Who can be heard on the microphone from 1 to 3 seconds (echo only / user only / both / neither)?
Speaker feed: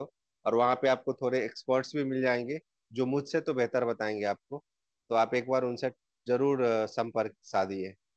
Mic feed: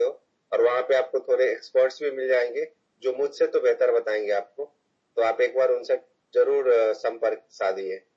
echo only